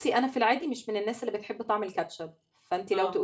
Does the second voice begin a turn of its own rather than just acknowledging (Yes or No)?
No